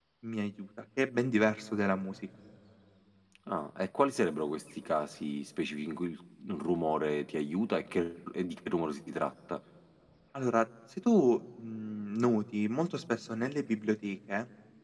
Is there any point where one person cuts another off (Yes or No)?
No